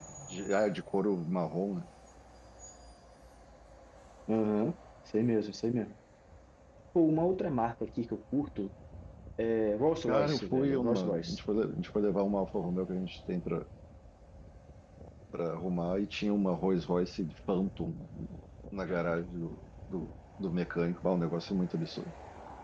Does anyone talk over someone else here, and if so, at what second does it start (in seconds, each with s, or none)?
10.1 s